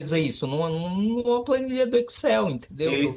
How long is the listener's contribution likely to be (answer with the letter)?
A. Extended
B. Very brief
A